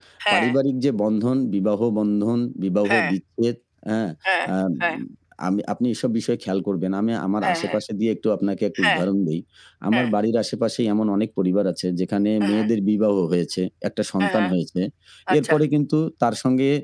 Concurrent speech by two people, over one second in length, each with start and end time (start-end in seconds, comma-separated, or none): none